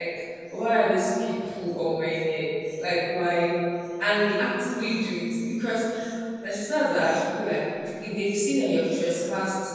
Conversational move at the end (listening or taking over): listening